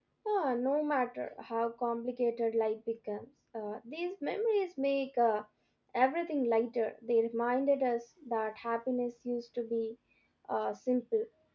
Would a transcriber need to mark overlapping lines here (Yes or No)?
No